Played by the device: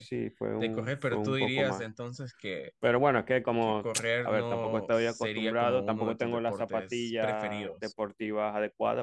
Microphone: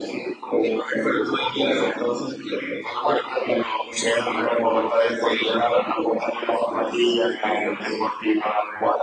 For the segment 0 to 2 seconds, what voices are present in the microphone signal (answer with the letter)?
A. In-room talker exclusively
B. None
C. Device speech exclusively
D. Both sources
C